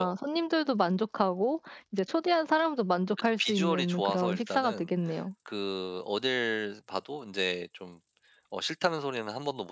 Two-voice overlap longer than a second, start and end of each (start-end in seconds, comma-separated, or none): 3.2-4.9